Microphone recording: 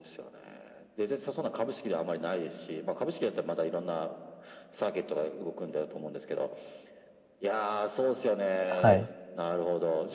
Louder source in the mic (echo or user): user